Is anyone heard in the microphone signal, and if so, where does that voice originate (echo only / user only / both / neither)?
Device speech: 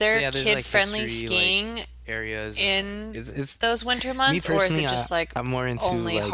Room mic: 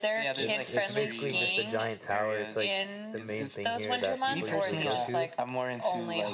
both